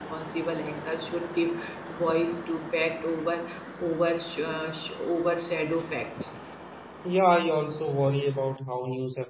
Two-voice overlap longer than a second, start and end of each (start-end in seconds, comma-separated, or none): none